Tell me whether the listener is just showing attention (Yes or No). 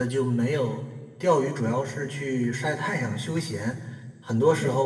Yes